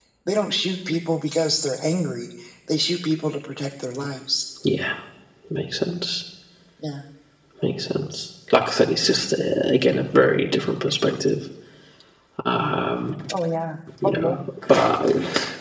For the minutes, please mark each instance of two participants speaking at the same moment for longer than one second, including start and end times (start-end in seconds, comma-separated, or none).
none